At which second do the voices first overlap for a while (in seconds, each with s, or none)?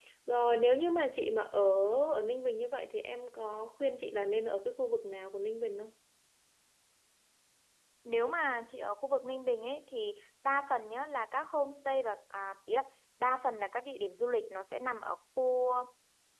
none